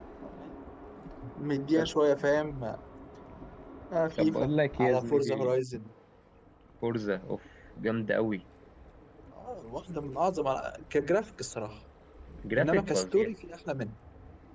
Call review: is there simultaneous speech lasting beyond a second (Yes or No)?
Yes